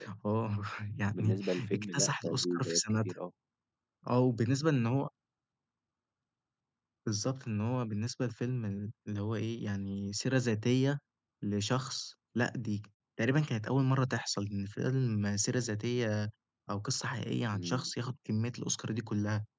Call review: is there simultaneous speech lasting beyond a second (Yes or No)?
Yes